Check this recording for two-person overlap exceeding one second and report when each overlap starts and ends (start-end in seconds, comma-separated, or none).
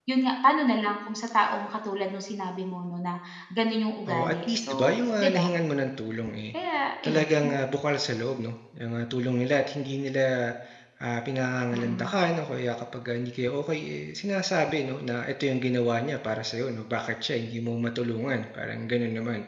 4.1-5.5